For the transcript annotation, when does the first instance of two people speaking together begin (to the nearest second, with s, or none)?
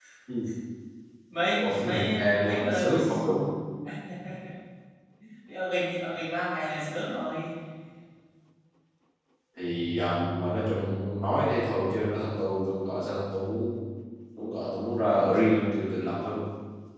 2 s